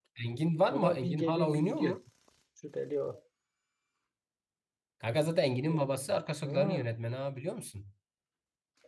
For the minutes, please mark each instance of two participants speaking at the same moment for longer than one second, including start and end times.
0.7-2.0

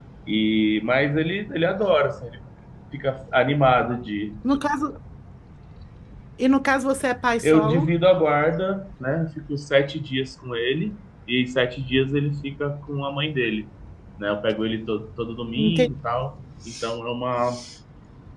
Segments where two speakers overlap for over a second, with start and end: none

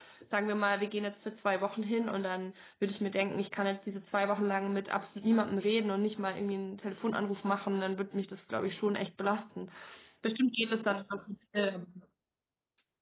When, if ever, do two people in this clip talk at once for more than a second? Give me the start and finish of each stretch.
none

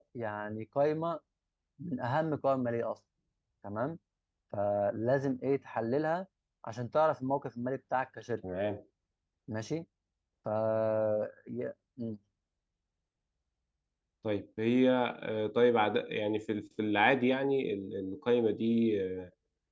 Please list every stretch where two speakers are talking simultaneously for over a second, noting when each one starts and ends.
none

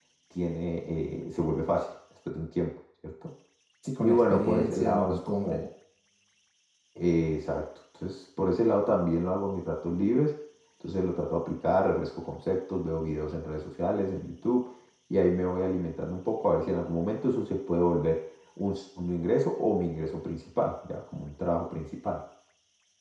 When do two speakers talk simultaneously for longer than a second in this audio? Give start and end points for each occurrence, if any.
4.0-5.6

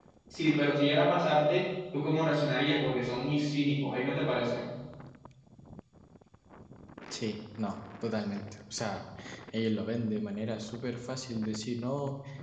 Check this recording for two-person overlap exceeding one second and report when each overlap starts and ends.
none

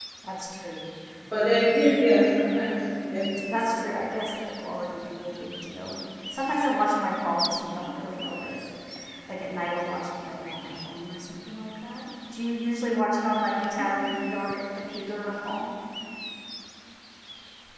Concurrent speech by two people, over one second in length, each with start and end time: none

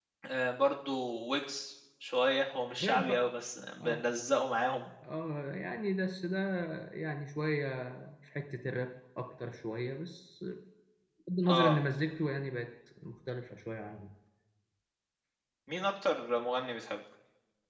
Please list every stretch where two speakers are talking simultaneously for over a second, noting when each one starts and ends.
none

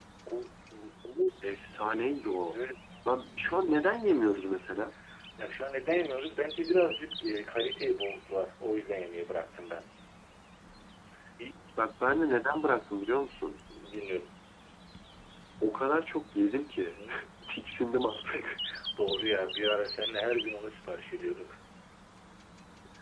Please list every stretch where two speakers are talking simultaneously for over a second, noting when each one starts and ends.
none

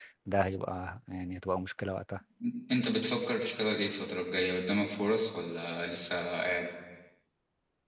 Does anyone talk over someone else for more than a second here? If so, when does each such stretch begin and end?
none

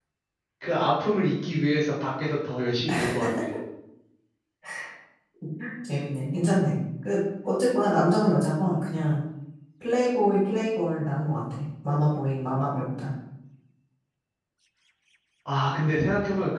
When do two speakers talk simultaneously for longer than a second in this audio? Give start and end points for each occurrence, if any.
none

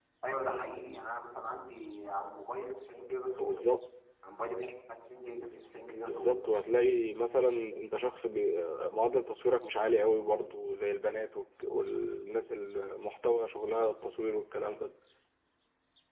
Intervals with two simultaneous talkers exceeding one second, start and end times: none

